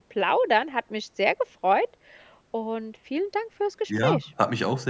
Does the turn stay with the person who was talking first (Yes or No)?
No